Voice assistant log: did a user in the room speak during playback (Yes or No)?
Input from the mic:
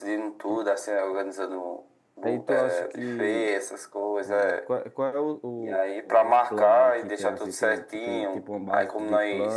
Yes